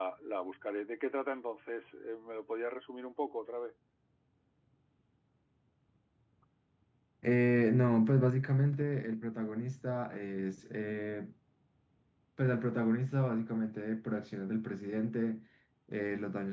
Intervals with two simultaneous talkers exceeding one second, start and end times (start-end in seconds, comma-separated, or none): none